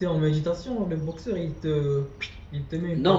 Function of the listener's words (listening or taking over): taking over